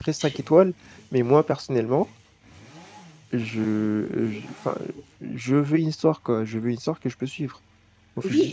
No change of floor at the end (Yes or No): No